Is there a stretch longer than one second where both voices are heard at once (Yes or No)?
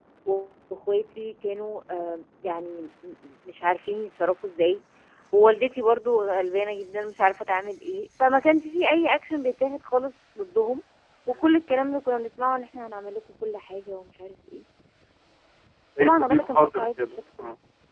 Yes